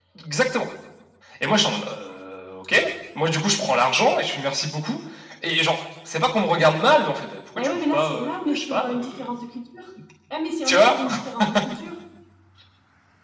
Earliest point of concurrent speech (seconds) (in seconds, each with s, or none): 7.6 s